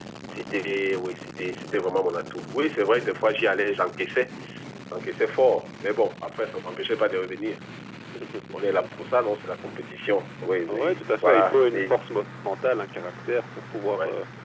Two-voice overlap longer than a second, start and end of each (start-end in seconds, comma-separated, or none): 10.7-11.9